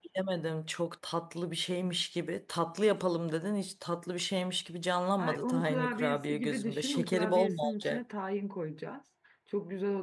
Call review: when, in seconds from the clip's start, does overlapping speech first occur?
5 s

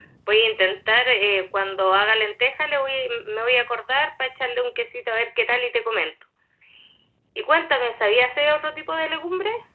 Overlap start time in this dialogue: none

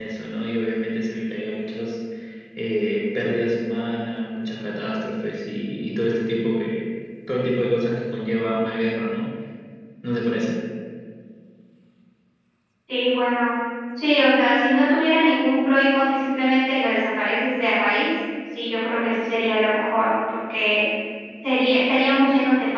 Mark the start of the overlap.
none

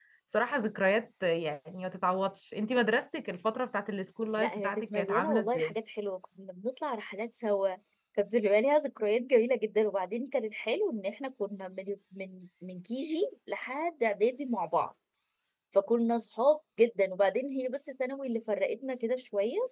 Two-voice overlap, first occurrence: 4 s

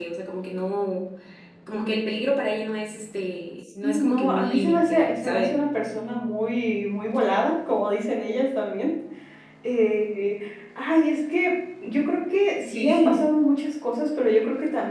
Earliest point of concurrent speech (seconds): 4 s

